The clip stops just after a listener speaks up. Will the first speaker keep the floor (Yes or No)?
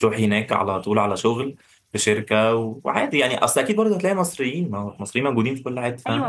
No